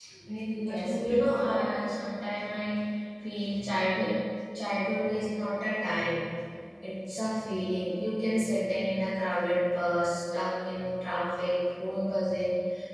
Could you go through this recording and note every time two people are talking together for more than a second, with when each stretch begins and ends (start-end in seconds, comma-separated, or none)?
0.5-2.0